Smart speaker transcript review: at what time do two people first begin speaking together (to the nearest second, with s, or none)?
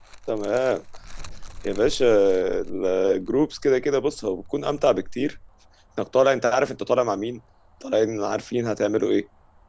none